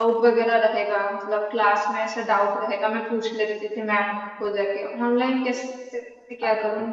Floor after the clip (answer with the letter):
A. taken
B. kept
B